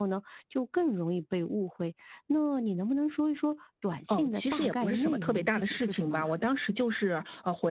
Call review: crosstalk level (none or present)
present